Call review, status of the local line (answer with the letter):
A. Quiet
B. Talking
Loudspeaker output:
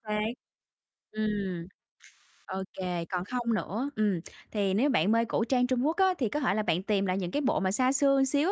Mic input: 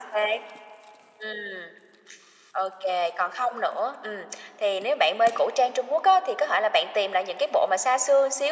A